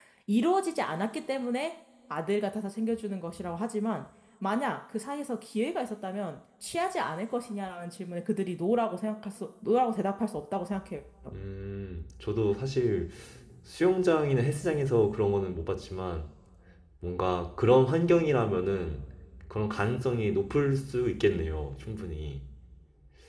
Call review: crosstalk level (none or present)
none